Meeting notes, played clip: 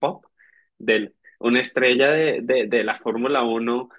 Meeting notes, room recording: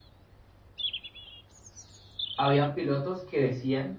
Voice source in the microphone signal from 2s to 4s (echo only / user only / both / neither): user only